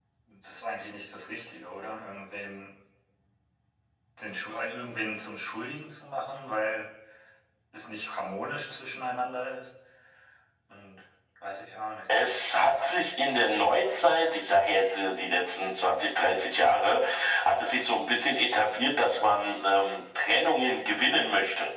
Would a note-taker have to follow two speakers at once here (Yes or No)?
No